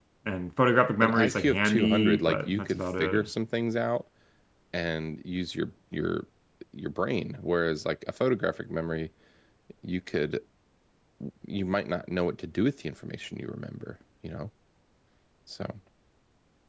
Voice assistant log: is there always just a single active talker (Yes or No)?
No